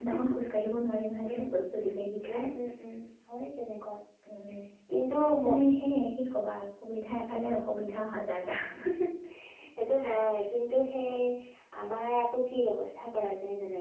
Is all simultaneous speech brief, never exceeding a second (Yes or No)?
Yes